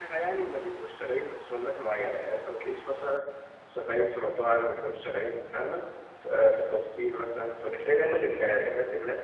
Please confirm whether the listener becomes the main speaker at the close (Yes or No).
No